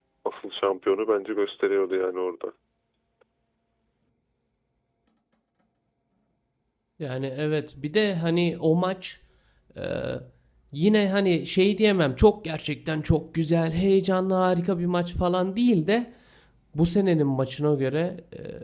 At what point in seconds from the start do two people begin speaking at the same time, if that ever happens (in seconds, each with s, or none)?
none